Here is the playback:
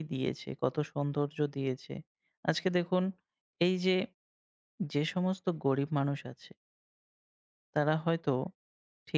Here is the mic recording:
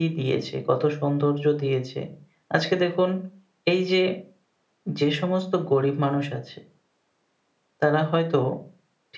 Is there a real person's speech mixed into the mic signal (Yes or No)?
No